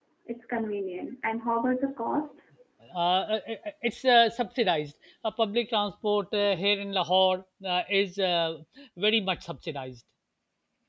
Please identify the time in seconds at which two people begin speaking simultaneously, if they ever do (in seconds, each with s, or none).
none